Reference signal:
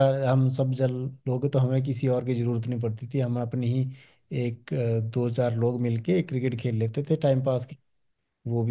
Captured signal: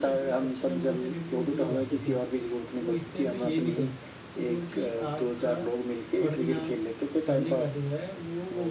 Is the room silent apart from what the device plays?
No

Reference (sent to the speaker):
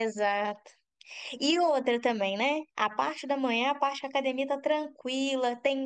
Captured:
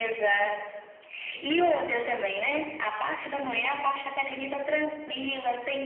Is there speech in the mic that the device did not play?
No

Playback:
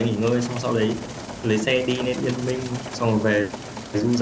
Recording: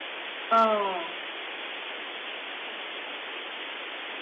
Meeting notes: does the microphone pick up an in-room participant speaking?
Yes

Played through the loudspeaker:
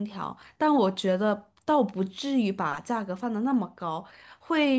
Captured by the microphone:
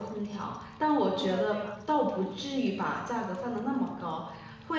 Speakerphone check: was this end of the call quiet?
No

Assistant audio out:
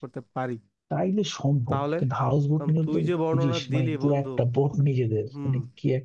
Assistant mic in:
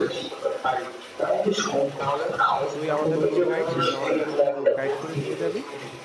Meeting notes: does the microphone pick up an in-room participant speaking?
Yes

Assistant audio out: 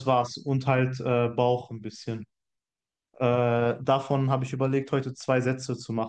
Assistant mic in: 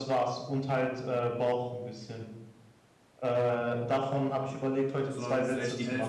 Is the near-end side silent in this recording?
No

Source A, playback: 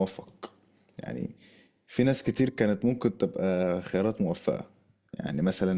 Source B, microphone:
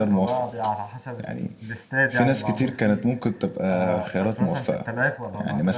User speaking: Yes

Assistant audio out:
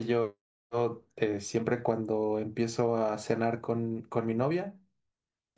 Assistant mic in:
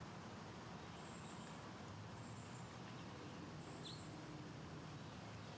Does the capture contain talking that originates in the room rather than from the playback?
No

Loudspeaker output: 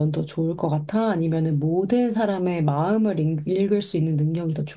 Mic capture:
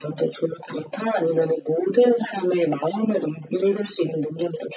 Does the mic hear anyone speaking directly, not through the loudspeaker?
No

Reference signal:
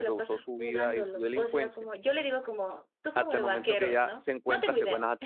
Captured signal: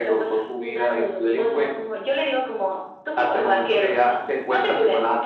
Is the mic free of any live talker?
Yes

